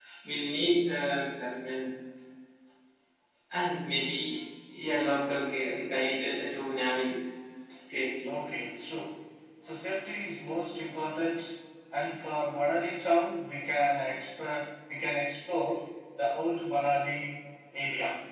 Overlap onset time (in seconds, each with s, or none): none